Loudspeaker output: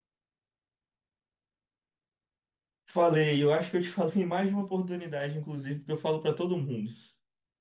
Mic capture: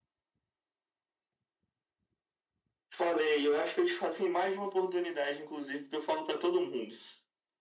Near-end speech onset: none

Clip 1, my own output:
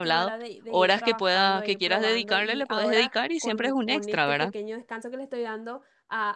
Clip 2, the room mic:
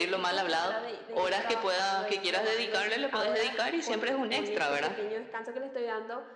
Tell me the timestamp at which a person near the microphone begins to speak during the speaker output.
none

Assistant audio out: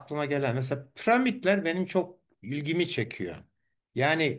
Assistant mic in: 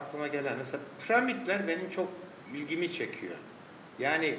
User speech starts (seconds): none

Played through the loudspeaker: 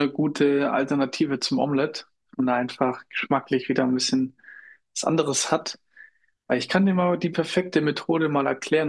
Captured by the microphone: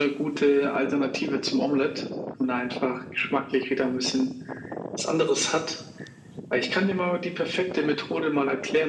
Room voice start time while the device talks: none

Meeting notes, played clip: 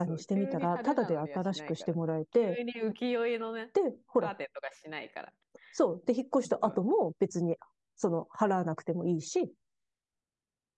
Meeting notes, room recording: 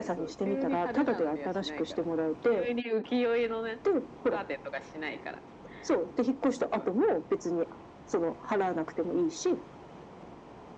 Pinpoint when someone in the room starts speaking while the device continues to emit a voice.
none

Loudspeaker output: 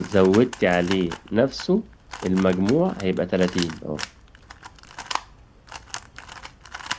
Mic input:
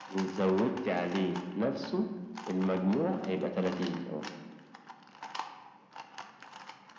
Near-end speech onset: none

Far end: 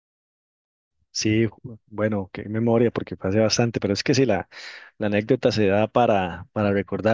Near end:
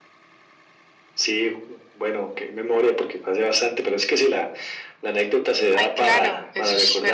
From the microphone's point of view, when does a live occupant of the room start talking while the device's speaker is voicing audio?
5.7 s

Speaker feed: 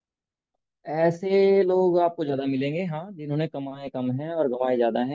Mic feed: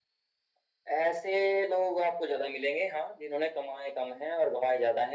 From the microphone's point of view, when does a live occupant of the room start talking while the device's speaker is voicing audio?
none

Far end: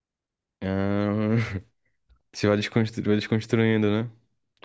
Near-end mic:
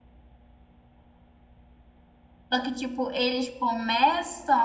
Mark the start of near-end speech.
2.5 s

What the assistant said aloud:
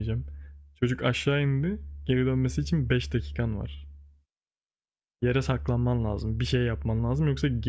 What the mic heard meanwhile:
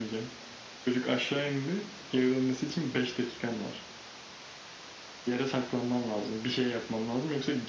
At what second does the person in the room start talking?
none

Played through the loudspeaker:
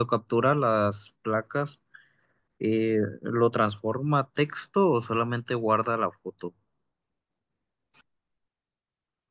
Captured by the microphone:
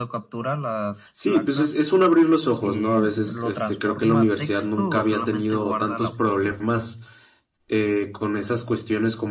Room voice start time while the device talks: 1.1 s

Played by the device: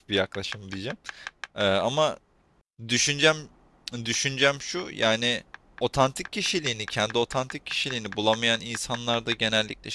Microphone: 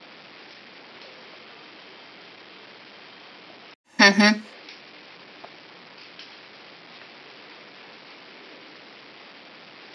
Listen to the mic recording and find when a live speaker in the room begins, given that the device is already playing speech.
4.0 s

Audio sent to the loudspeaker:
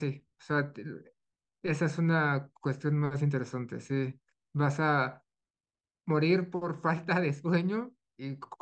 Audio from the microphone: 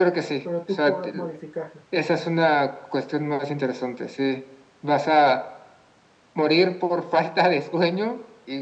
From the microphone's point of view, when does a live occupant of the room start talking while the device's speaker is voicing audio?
0.4 s

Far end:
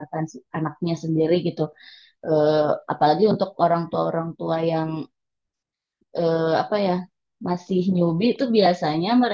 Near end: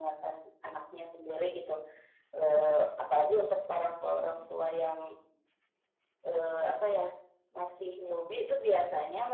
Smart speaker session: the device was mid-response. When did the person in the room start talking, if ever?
3.8 s

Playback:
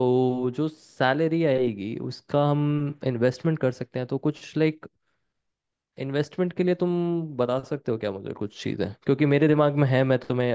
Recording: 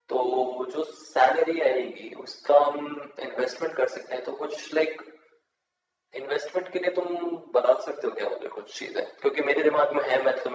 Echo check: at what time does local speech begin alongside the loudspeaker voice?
none

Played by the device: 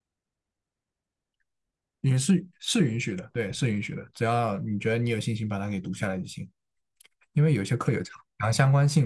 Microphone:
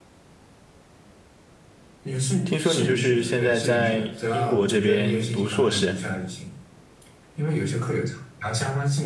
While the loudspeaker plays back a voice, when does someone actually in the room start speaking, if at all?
2.4 s

